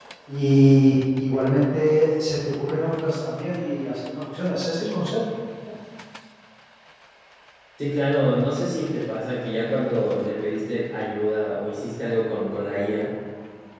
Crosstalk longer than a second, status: none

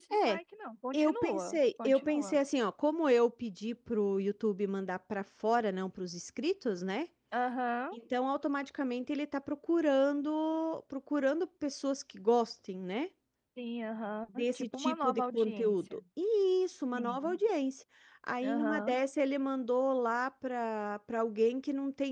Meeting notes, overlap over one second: present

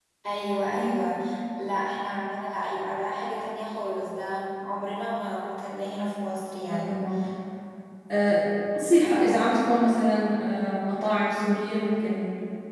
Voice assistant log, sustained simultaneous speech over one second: none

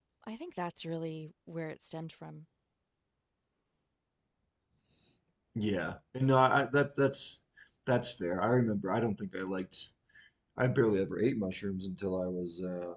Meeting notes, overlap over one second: none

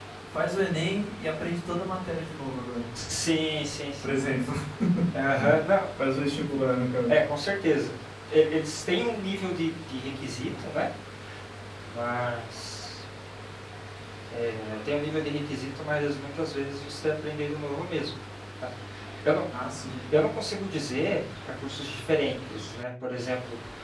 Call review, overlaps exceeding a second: none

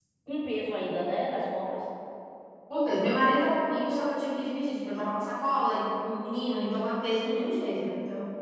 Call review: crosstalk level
none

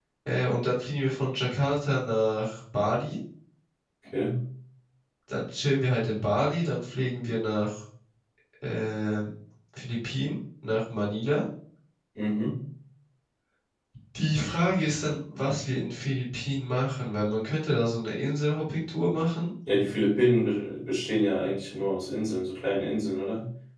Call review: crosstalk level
none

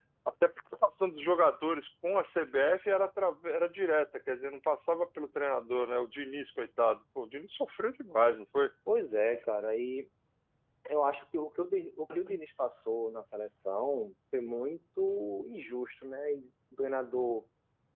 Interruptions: none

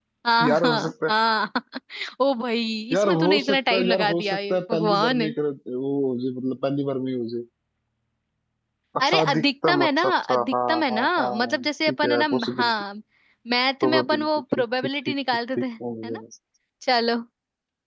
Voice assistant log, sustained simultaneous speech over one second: present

